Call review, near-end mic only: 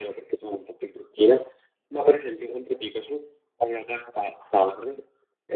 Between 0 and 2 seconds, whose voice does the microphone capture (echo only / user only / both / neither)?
echo only